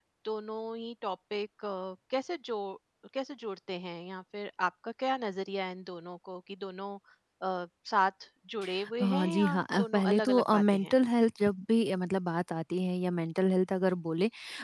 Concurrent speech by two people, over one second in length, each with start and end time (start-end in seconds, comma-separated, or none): 9.0-10.9